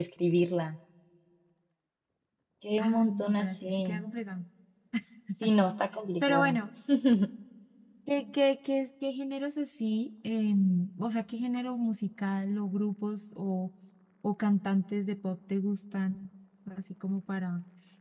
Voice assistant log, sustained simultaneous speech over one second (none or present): present